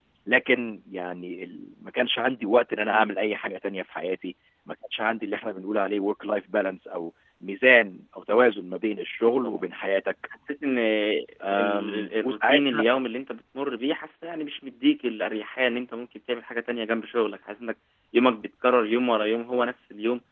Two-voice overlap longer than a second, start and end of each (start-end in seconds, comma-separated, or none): 11.6-12.8